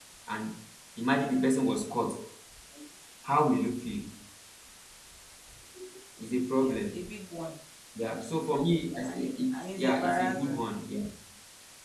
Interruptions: present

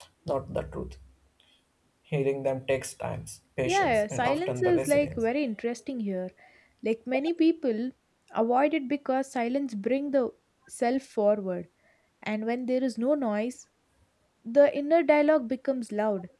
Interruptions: present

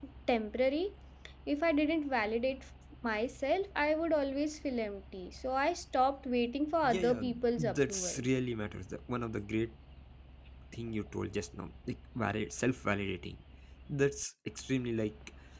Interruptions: present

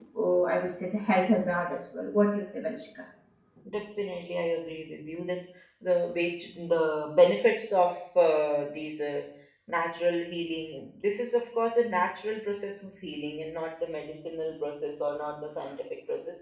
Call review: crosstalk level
none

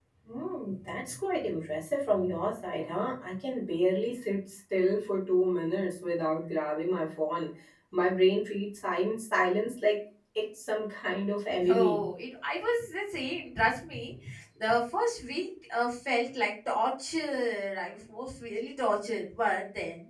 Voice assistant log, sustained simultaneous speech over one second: none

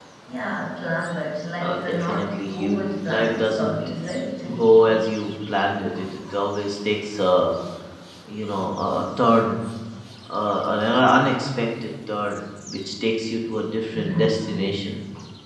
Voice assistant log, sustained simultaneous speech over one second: present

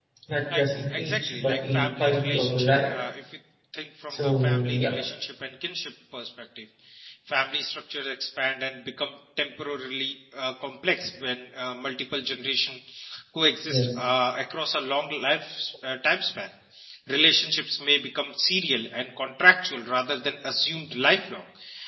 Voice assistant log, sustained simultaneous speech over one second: present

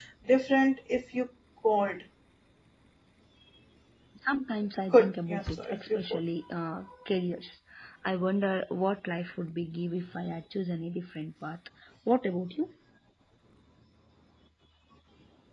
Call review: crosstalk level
present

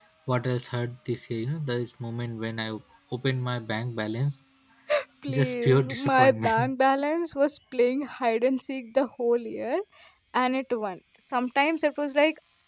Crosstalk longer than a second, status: present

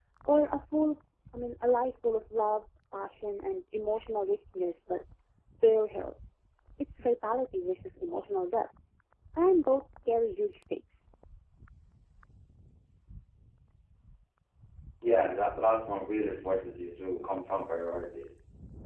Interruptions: none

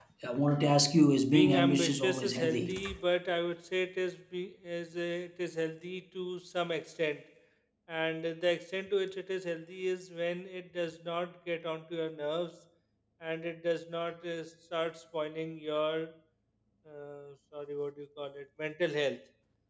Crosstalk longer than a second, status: present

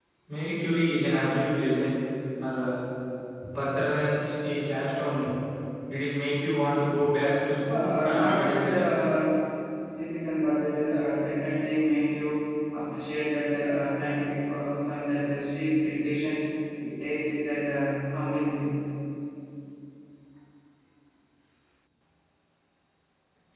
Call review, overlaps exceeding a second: present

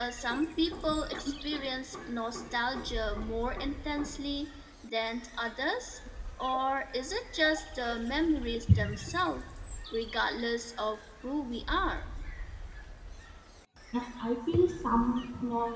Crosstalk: none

